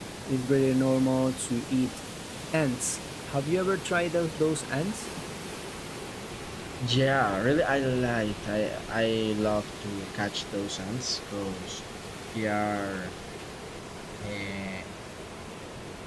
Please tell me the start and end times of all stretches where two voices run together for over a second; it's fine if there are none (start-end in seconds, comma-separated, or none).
none